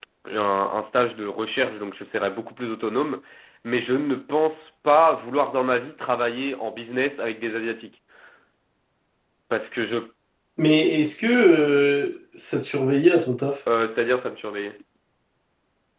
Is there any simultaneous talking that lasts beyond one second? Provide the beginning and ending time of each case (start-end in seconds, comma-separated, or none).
none